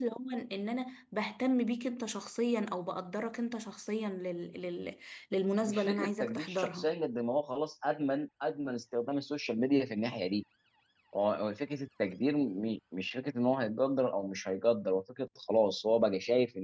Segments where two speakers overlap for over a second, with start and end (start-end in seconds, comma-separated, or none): 5.6-6.9